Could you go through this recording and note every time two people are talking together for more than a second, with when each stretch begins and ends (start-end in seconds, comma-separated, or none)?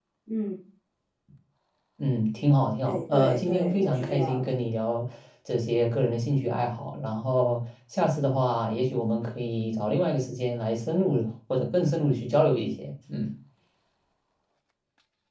2.8-4.5